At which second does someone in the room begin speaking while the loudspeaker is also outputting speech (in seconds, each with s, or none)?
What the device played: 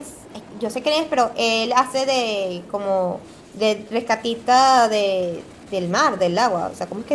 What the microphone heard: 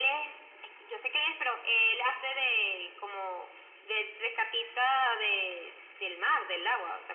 none